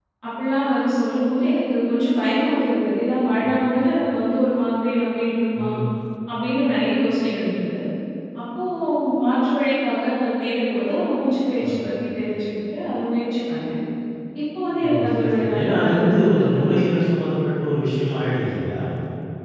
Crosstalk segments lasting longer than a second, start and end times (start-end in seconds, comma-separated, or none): 14.8-17.1